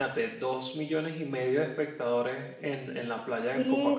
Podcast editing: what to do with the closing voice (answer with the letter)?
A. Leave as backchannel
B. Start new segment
B